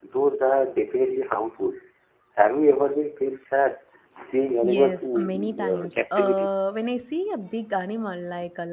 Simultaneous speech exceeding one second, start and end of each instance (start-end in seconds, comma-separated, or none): 4.6-6.5